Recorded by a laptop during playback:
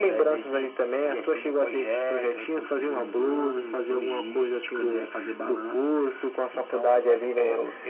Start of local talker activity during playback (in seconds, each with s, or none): none